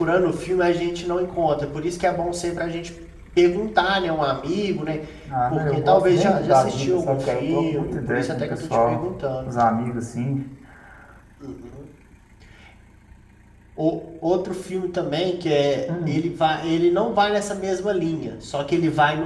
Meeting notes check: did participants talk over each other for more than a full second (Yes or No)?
Yes